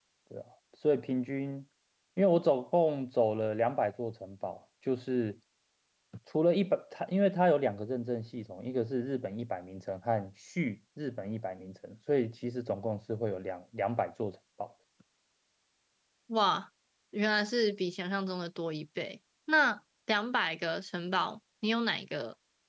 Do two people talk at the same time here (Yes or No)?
No